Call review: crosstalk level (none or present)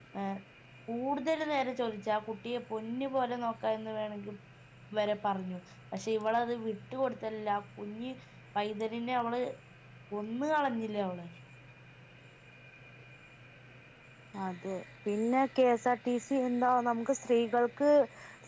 none